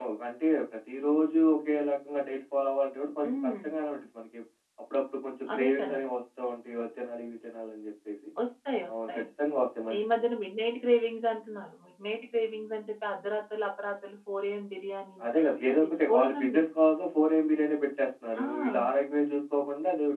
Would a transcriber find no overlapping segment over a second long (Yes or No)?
No